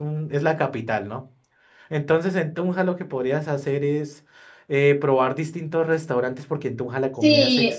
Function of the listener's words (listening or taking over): taking over